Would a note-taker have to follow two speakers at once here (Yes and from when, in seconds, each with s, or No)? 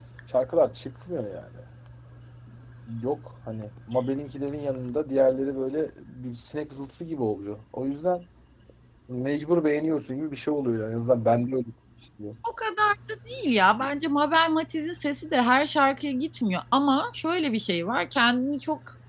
No